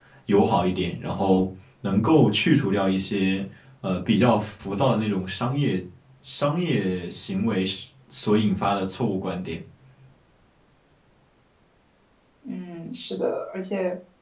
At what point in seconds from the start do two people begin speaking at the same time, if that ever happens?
none

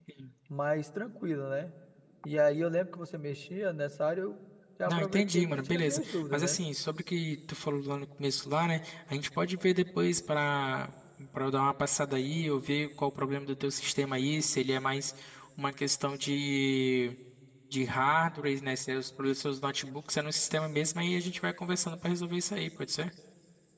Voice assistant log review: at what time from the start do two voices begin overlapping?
4.9 s

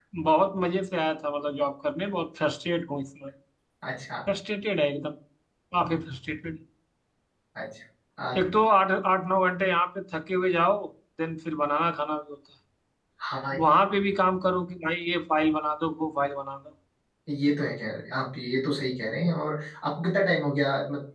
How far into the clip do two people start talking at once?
none

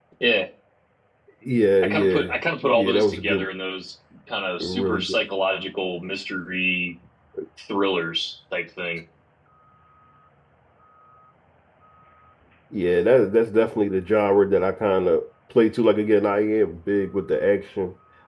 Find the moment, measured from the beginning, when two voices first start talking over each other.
1.8 s

